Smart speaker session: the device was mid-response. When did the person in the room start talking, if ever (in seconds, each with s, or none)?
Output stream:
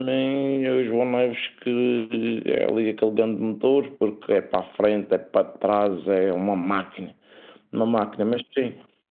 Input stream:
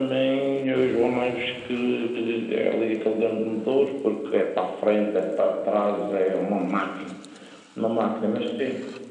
none